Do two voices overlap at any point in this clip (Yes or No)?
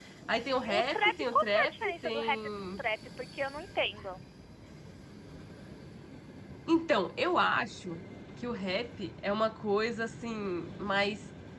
Yes